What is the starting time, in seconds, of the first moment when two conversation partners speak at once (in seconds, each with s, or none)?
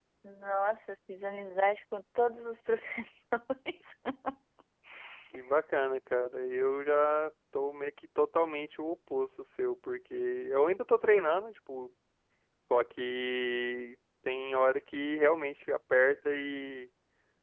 none